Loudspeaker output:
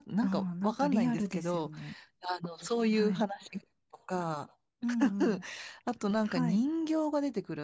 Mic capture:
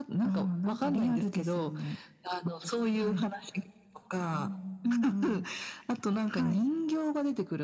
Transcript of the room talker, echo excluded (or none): うーん